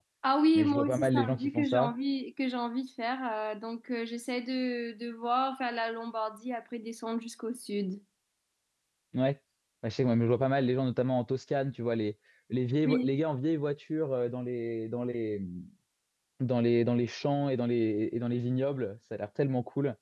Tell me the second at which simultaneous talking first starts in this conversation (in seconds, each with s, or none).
0.6 s